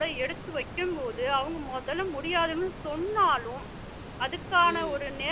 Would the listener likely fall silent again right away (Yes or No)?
Yes